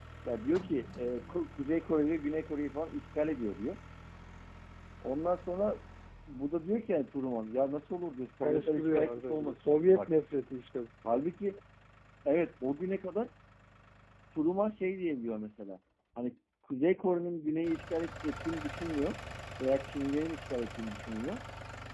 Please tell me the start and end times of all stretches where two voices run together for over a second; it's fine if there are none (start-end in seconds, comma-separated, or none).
8.4-10.1